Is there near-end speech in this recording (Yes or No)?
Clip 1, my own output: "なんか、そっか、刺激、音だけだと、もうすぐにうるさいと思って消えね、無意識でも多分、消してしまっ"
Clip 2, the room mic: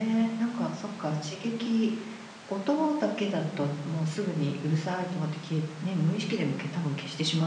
No